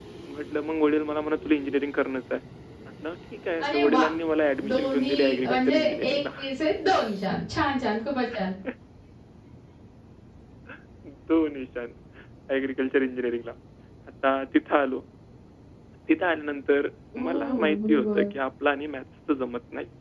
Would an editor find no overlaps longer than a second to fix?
No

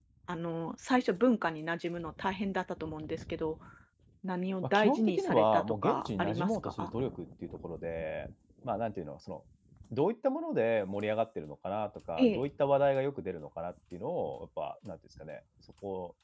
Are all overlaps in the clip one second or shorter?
No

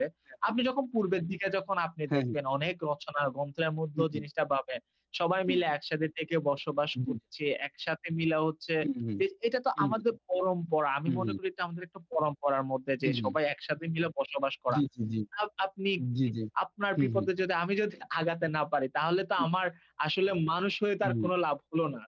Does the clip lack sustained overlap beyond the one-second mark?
Yes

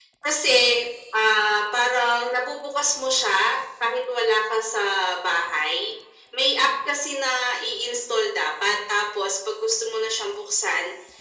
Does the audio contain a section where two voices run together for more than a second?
No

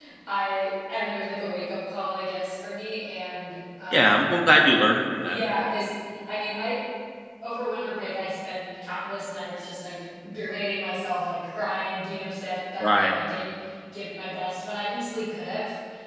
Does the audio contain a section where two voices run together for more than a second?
No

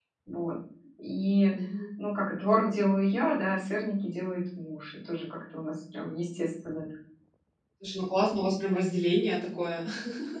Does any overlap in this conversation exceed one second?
No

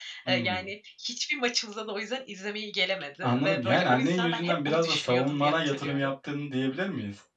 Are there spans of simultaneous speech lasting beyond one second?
Yes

